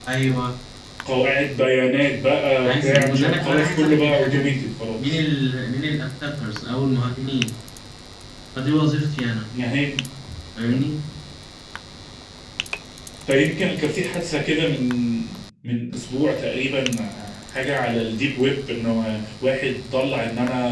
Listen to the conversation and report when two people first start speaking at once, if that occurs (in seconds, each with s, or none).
2.6 s